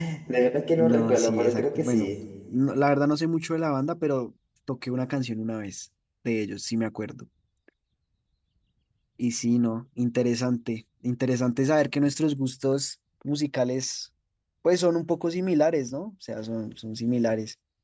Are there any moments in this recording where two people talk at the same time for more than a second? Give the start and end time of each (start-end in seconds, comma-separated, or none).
0.8-2.1